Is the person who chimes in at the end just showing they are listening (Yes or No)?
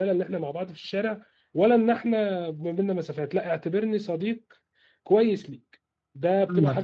No